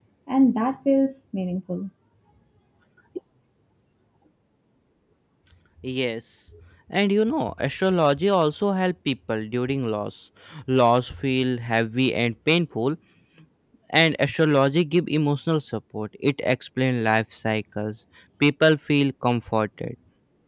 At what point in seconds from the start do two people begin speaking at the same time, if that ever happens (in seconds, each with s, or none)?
none